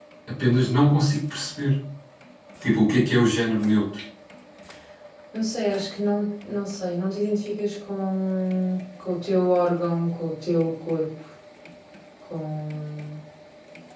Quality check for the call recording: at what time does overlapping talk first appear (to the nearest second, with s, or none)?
none